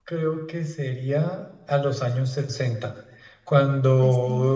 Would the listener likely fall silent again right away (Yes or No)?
Yes